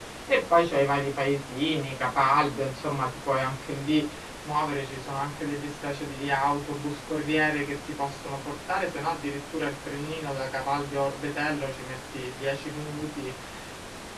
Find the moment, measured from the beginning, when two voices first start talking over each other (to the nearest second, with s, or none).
none